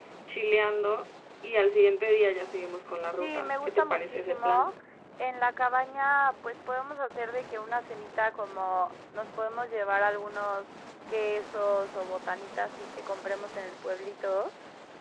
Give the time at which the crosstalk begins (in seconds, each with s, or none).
3.2 s